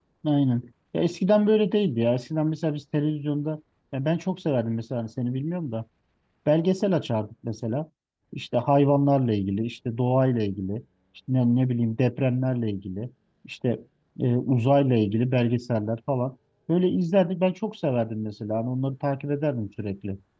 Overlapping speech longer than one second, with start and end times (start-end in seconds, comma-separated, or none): none